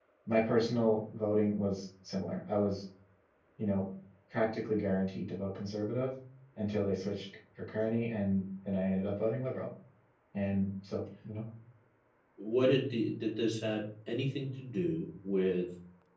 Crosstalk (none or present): none